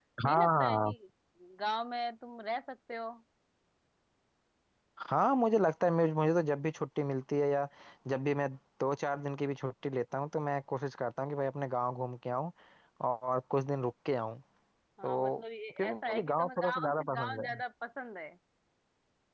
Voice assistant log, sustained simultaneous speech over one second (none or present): present